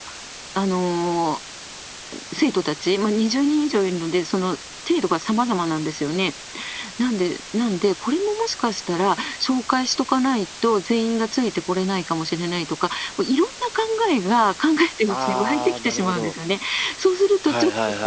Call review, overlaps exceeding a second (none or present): present